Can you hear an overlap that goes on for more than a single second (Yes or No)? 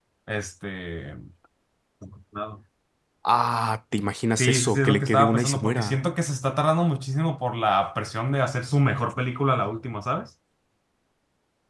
Yes